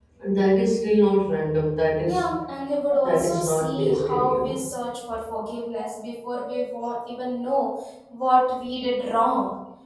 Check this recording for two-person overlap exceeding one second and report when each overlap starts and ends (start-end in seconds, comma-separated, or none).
3.0-4.6